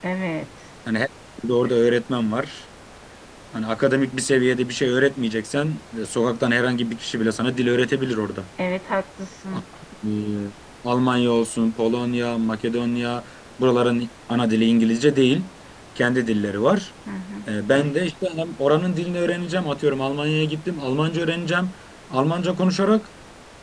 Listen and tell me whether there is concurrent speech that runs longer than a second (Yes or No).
No